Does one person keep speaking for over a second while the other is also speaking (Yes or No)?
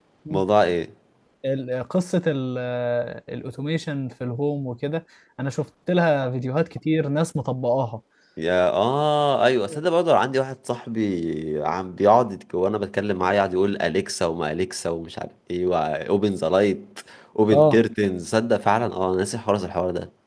No